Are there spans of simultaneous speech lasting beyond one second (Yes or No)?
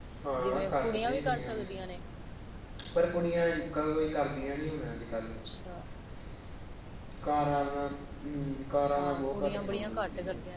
Yes